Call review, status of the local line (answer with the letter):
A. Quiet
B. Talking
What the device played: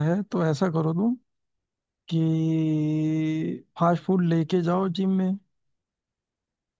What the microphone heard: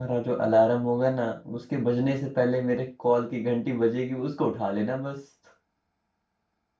B